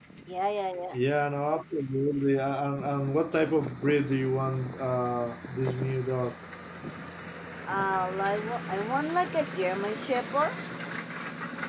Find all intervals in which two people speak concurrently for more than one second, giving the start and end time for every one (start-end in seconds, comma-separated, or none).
none